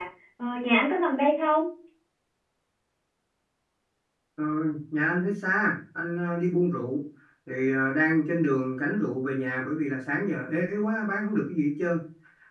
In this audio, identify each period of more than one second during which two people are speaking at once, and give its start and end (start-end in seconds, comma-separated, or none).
none